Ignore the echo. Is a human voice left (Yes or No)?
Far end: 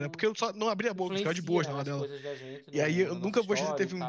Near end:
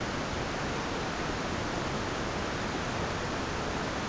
No